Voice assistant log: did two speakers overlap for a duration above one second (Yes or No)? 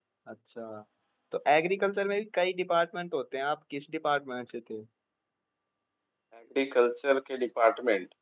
No